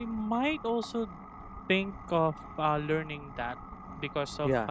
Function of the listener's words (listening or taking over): listening